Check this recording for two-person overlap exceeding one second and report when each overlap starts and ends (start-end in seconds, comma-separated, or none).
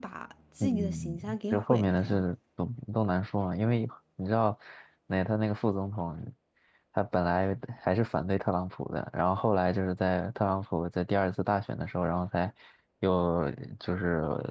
0.6-2.2